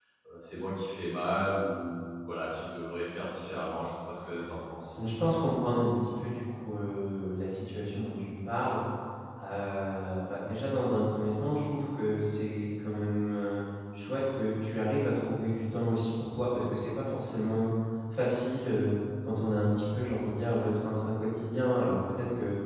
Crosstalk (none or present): none